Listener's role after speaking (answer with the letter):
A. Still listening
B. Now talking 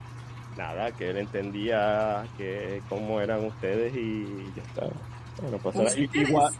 A